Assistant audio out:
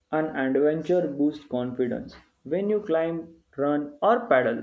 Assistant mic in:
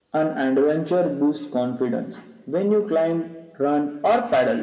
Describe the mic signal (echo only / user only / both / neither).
echo only